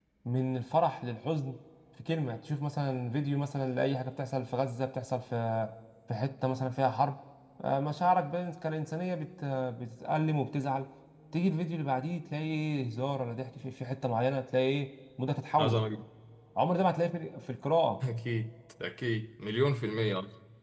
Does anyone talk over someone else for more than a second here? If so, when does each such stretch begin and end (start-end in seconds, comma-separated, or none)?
none